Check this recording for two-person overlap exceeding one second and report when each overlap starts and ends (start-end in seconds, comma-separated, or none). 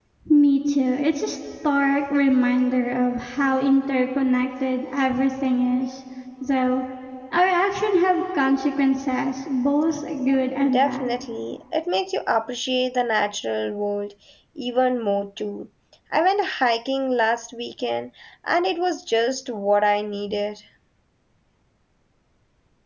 none